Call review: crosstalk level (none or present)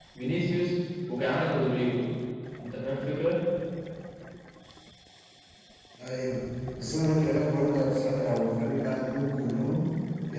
none